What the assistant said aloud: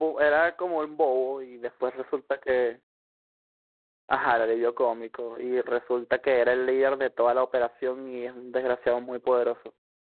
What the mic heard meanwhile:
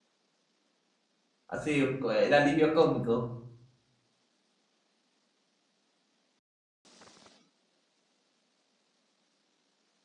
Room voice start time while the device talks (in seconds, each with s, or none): 1.5 s